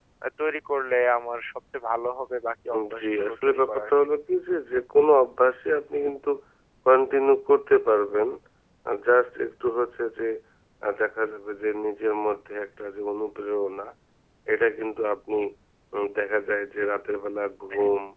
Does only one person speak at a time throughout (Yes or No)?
No